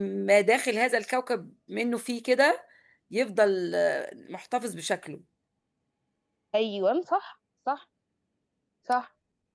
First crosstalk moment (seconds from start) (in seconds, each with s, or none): none